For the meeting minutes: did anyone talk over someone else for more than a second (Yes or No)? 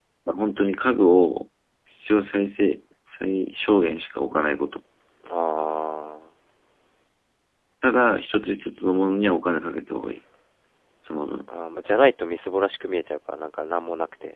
No